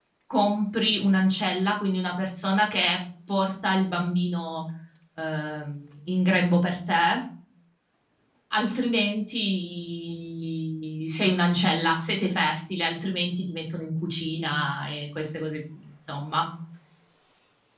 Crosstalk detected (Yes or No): No